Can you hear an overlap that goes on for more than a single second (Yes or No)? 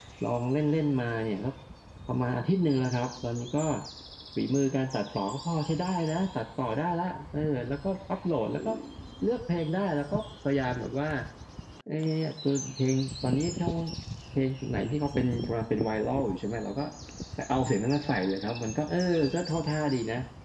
No